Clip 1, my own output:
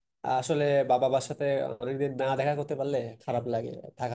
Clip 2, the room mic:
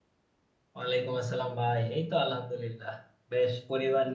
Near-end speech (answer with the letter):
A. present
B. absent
A